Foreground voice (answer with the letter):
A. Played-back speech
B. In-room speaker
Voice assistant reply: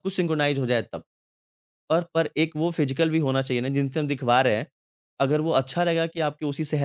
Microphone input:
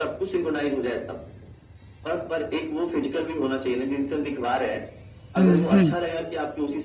B